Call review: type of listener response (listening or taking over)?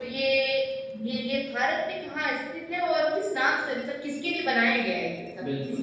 taking over